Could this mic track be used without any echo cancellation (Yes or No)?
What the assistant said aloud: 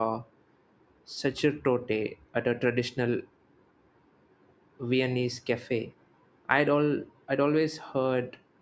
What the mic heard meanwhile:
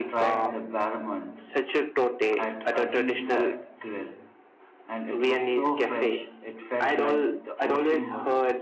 No